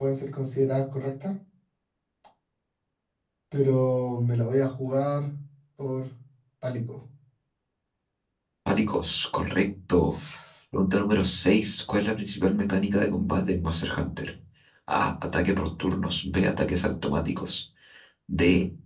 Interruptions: none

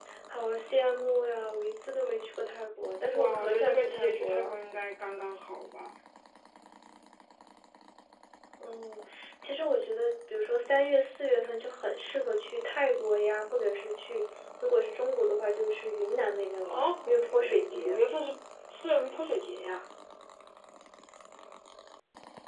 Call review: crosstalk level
present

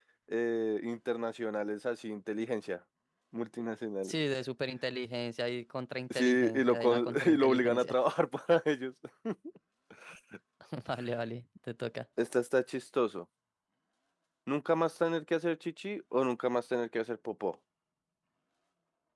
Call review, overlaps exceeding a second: present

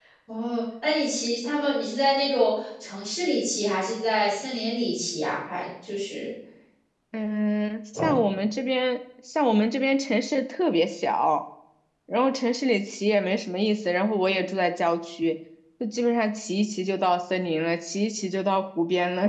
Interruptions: none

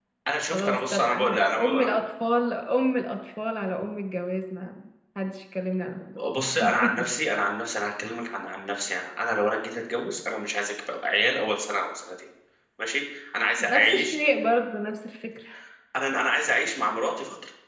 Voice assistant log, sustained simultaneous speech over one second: present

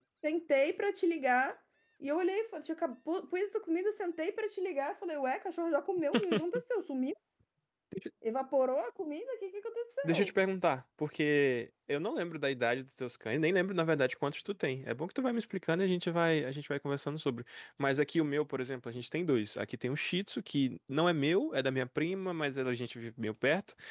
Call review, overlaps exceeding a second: none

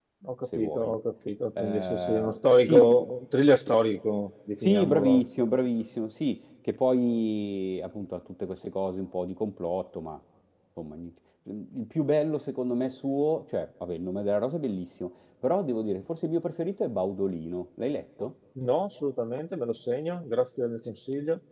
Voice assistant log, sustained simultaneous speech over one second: present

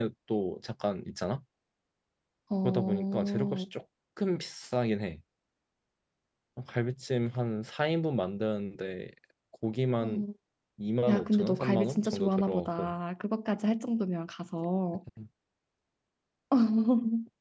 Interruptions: present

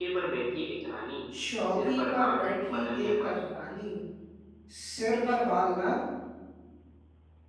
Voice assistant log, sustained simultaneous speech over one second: present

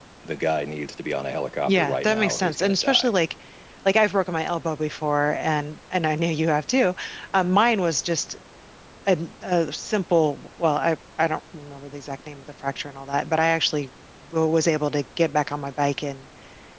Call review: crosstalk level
present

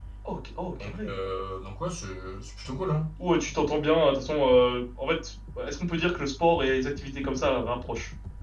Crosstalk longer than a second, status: none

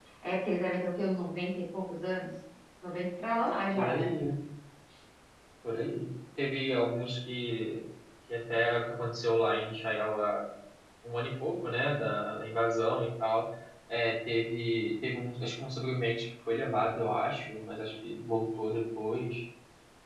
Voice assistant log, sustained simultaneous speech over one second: none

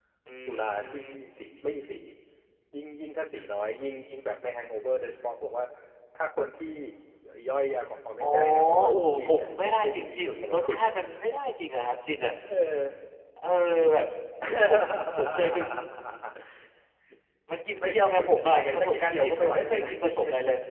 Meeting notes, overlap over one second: present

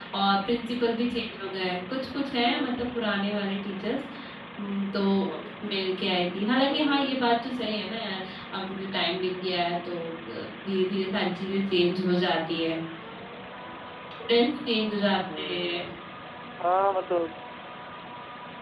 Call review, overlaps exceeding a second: none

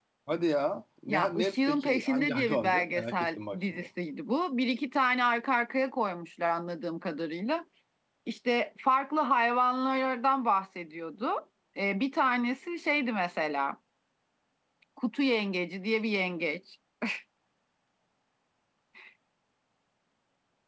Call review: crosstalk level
present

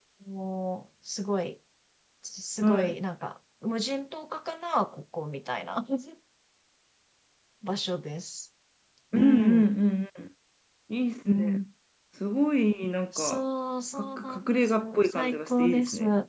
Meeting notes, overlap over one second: present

